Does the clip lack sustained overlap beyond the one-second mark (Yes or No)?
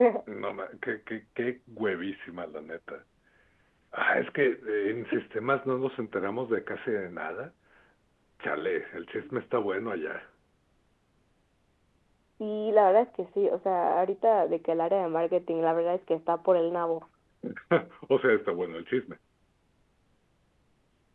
Yes